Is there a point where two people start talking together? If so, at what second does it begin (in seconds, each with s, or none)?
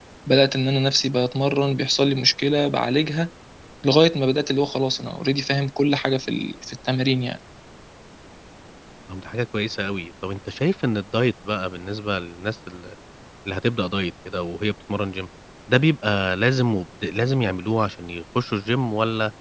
none